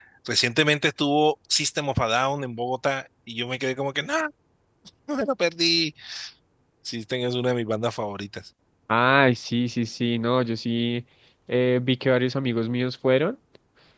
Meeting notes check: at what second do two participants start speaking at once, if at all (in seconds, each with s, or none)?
none